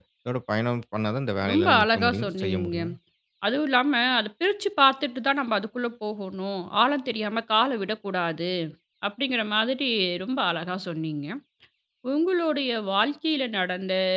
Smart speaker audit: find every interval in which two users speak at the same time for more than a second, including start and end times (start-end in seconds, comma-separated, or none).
1.5-2.8